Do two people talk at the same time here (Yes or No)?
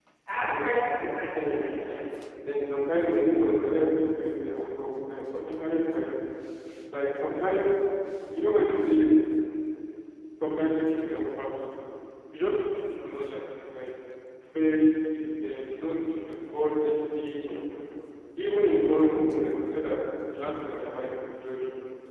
Yes